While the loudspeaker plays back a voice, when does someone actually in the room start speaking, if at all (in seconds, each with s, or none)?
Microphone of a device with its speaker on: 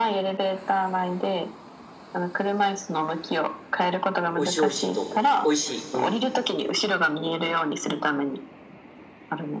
4.3 s